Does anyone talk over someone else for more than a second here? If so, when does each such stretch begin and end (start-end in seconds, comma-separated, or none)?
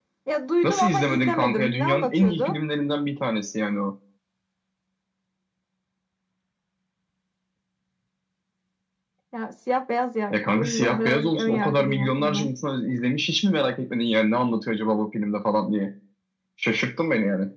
0.6-2.5, 10.3-12.5